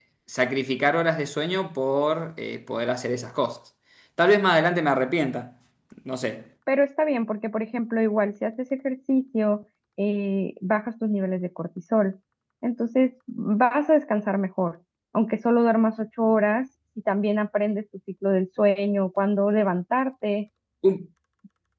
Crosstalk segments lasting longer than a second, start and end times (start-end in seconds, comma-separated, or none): none